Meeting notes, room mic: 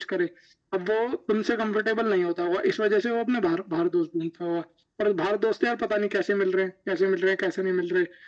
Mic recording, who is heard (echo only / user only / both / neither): echo only